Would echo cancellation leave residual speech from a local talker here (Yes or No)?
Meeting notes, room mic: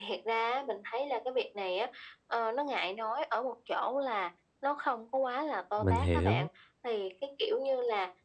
Yes